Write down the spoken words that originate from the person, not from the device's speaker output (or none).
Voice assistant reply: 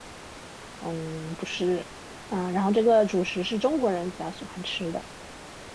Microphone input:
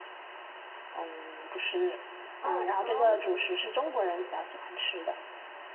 哦，包子，